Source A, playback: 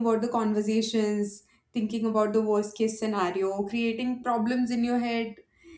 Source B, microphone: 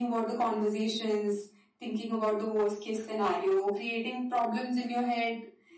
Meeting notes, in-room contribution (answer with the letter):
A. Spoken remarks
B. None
B